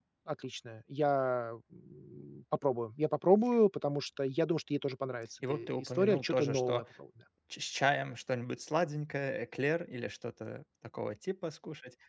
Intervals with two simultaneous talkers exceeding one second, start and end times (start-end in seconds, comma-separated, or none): 5.5-6.8